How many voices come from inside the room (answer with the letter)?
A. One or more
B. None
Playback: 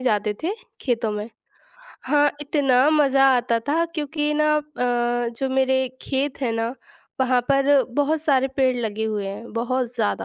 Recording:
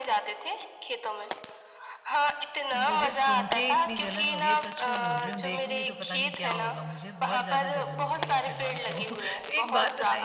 A